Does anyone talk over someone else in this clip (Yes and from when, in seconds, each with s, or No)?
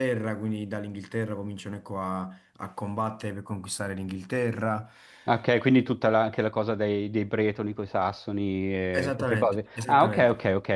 Yes, from 8.9 s